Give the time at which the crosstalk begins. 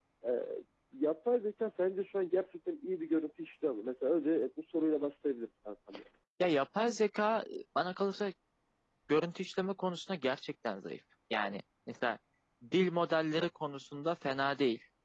none

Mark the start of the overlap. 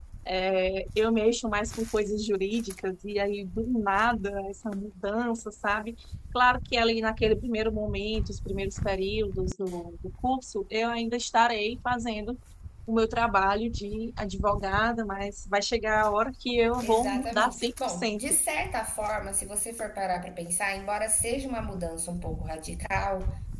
16.8 s

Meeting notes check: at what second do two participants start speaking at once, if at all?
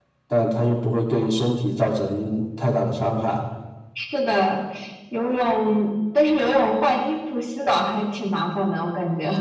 none

